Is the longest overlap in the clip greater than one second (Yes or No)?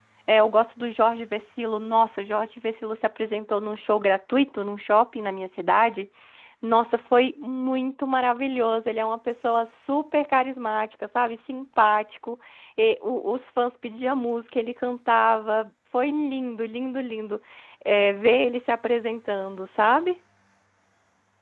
No